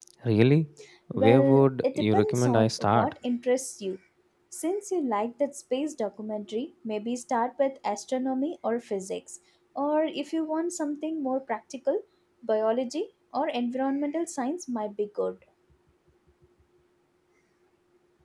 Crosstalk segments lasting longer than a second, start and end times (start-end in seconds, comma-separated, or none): 1.1-3.1